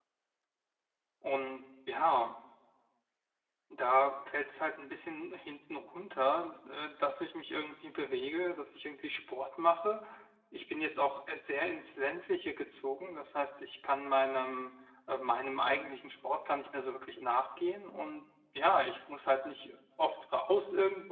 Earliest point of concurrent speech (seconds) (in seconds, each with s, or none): none